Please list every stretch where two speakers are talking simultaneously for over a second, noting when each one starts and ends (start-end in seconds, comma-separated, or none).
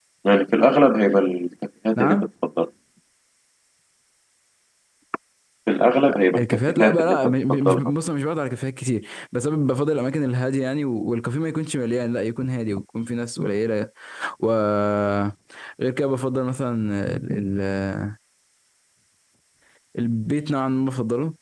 6.3-7.9